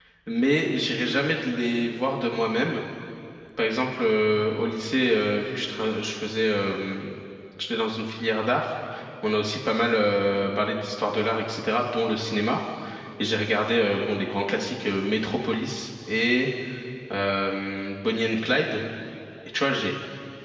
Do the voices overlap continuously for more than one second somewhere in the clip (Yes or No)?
No